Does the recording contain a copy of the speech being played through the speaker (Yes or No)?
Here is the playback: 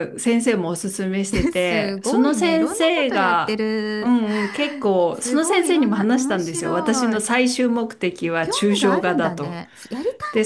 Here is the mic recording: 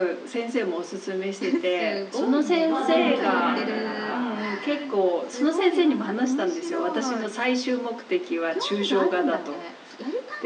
Yes